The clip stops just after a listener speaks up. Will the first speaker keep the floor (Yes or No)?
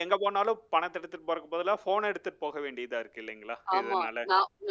No